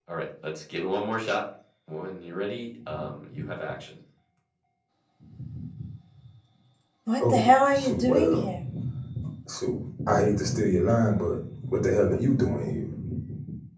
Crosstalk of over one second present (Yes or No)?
Yes